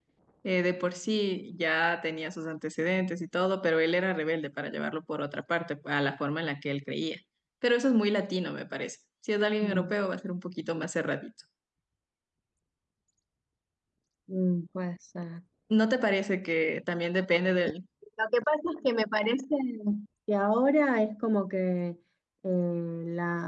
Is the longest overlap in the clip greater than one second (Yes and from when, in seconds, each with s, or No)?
No